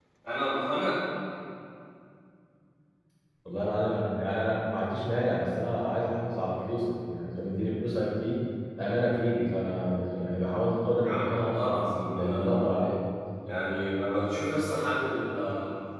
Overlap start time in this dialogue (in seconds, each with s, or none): 11.0 s